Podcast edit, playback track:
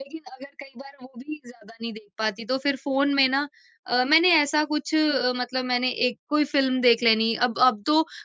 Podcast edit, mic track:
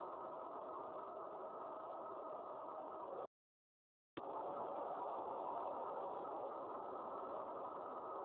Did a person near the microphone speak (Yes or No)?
No